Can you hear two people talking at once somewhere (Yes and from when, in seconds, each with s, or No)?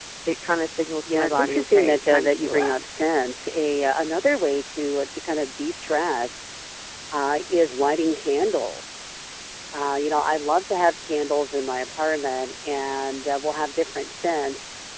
Yes, from 1.0 s